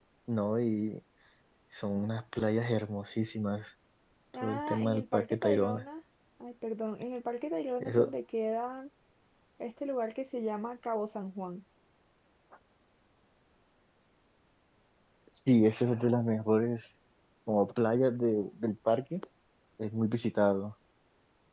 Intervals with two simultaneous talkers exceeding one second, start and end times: 4.4-5.8

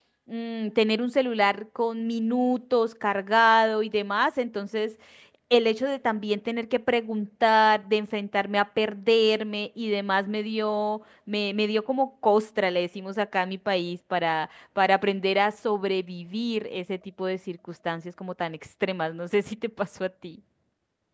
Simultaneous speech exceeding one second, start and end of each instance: none

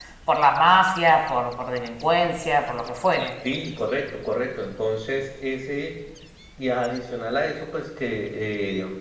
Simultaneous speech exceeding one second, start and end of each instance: none

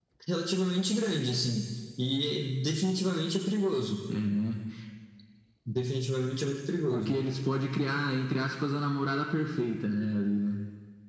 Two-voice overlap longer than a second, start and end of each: none

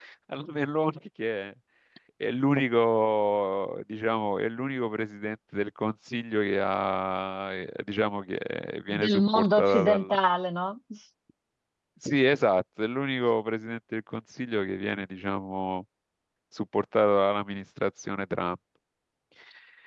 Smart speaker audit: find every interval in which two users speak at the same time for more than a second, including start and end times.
8.9-10.2

